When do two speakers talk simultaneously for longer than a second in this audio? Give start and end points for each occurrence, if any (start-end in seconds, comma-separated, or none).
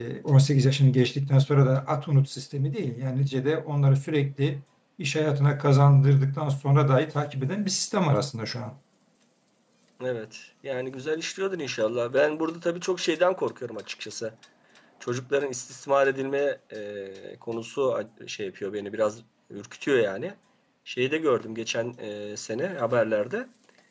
none